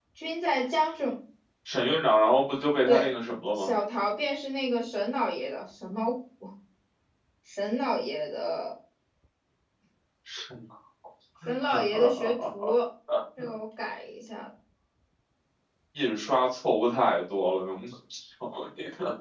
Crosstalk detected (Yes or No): Yes